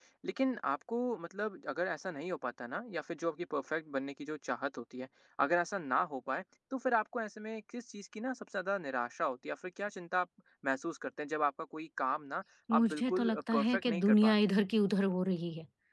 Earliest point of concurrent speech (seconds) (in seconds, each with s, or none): 12.7 s